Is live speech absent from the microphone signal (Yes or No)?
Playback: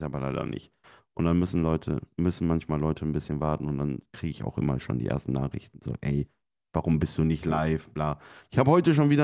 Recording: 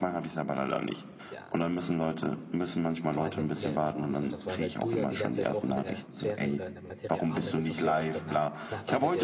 No